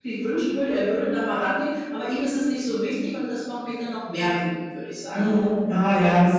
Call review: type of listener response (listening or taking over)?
taking over